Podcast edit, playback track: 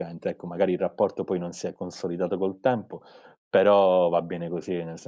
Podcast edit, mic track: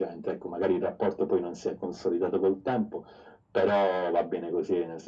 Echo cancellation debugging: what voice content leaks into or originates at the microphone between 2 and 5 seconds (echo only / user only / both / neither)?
echo only